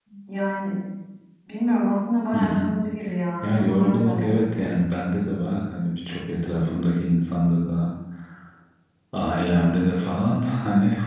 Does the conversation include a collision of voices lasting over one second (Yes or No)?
Yes